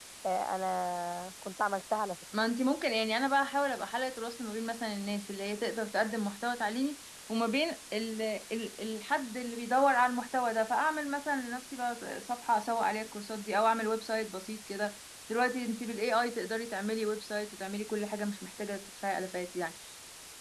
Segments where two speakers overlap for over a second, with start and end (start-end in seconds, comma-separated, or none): none